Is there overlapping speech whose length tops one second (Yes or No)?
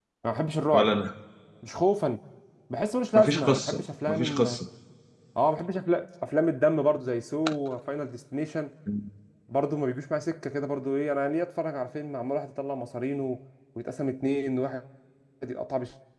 Yes